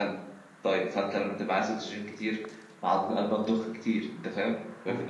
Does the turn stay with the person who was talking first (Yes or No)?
Yes